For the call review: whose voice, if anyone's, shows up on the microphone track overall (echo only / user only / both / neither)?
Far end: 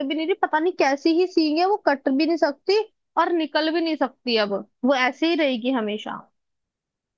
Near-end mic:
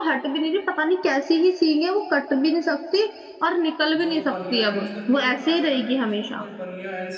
both